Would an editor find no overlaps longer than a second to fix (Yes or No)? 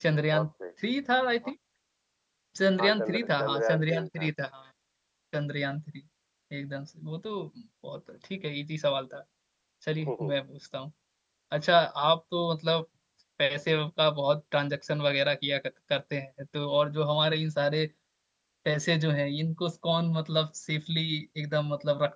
No